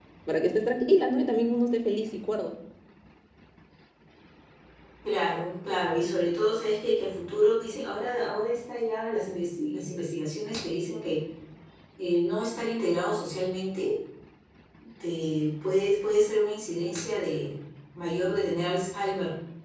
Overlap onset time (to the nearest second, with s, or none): none